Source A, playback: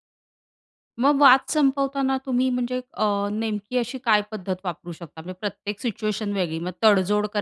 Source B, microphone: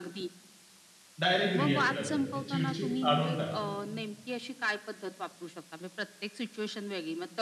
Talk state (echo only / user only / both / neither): both